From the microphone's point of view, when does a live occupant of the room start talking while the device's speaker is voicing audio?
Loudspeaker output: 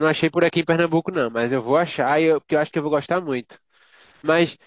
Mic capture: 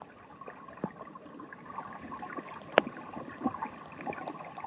none

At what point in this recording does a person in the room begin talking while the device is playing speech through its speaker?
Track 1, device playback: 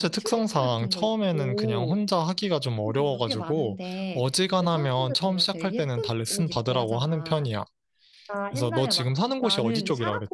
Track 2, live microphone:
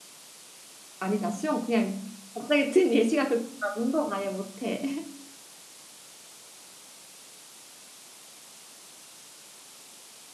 1 s

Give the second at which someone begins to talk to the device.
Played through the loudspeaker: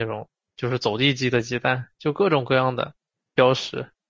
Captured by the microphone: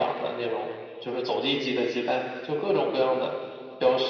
none

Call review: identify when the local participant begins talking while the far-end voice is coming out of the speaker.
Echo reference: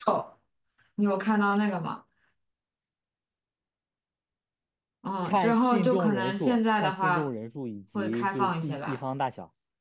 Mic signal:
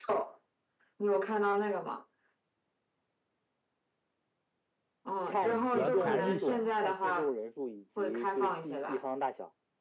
5 s

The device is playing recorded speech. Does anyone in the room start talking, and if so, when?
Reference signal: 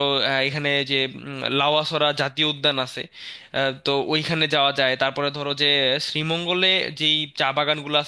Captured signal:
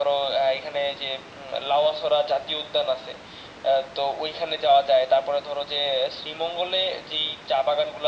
none

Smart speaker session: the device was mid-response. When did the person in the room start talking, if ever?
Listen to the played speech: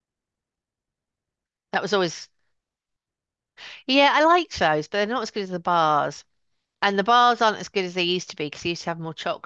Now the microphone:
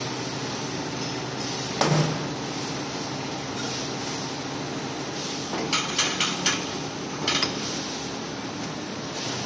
none

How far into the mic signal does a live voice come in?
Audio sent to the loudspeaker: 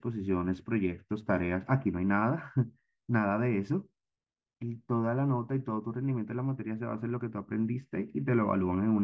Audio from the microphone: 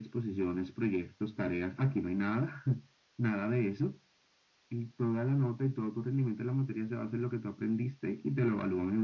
none

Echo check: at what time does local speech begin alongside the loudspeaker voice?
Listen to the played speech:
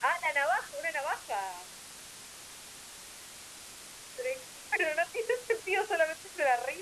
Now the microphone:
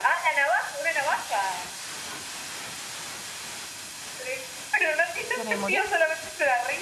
5 s

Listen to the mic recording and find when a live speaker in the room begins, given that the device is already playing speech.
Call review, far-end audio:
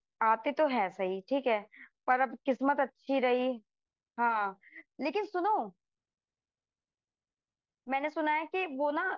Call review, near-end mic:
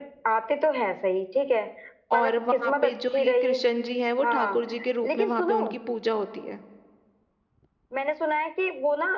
2 s

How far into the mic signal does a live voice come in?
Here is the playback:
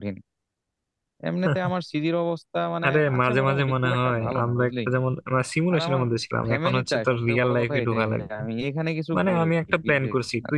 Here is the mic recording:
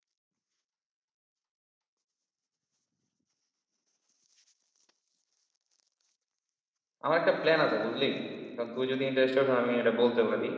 7 s

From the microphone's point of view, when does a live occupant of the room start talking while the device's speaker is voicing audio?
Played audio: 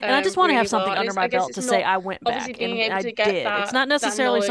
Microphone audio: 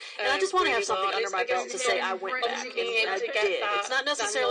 2 s

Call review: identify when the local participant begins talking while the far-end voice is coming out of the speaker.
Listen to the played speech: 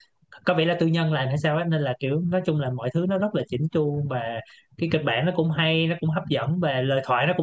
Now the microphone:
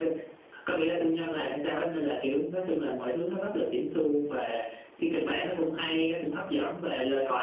none

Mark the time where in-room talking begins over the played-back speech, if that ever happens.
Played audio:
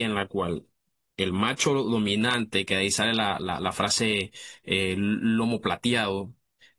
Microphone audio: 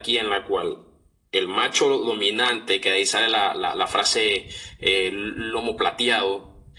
none

